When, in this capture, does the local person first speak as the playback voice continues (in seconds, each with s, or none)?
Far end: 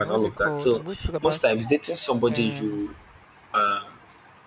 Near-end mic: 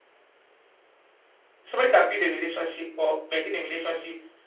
1.6 s